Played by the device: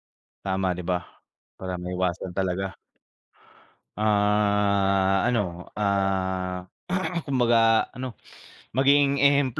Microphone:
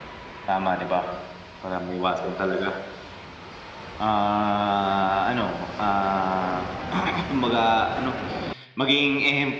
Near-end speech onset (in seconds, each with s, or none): none